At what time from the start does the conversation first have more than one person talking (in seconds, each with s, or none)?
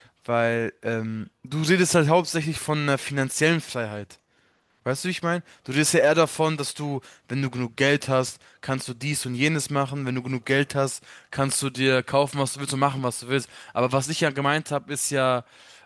none